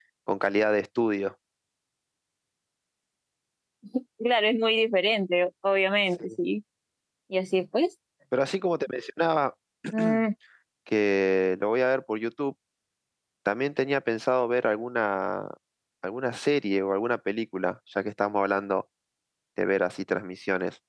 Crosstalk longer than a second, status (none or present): none